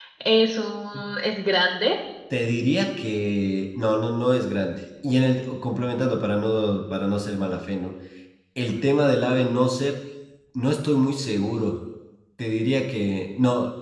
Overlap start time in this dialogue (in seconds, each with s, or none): none